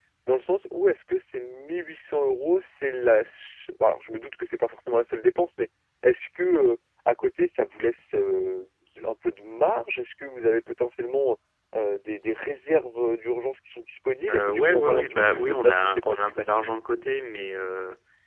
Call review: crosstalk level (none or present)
present